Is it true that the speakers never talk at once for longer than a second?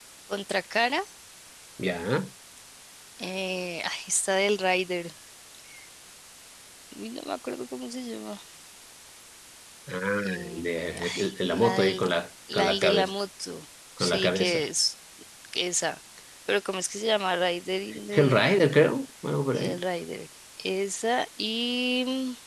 No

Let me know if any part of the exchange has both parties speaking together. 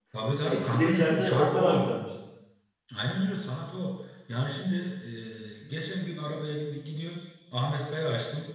Yes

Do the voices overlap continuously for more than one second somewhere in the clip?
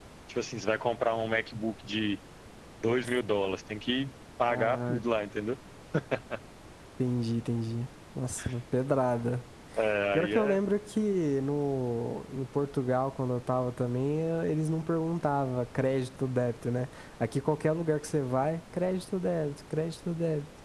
No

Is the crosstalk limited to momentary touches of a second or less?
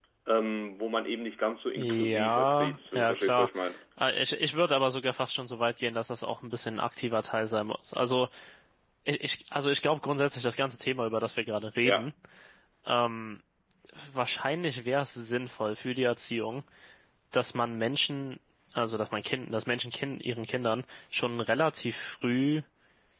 No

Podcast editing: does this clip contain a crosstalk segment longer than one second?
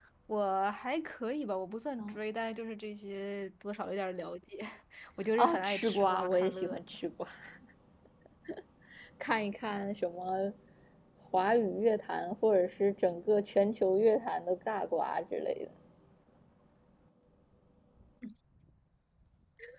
Yes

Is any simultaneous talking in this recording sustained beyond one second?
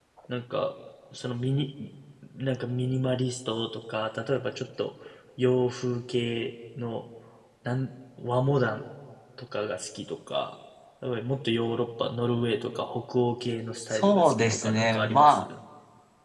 Yes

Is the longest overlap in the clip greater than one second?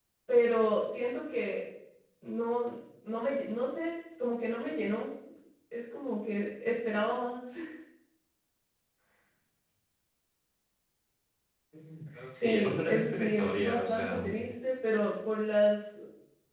Yes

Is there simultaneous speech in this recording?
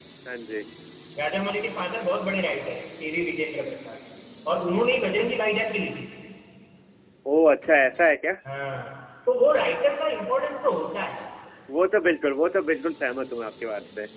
No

